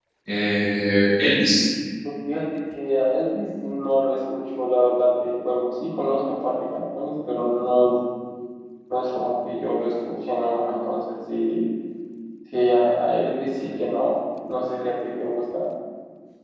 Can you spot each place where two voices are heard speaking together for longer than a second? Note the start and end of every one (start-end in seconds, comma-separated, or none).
none